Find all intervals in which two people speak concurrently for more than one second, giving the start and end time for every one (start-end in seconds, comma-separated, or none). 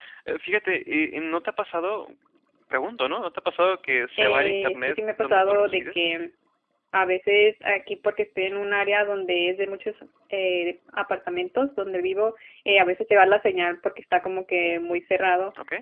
4.2-6.1